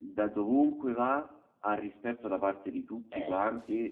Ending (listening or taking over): listening